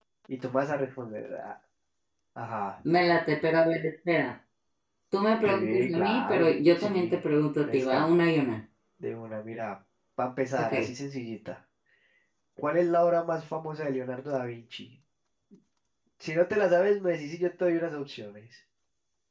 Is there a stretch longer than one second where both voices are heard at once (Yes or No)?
Yes